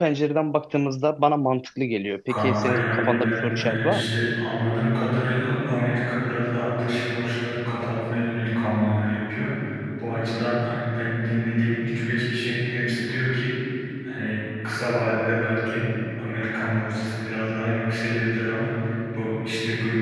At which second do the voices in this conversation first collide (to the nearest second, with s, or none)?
2 s